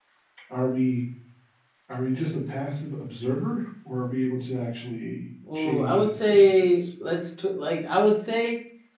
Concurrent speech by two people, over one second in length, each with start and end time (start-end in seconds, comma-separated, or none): 5.5-6.8